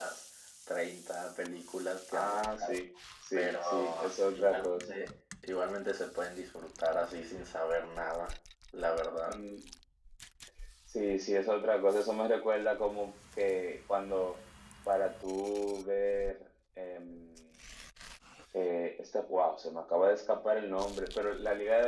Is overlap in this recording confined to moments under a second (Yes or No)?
No